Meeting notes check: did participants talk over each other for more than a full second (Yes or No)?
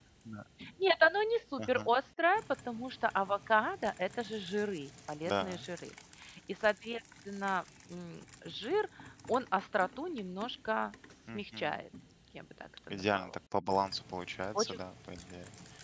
No